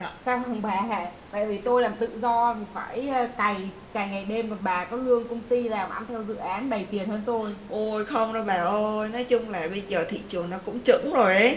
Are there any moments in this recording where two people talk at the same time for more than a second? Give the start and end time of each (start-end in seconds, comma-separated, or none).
none